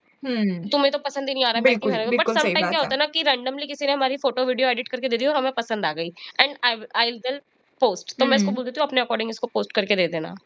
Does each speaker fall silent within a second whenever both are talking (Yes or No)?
No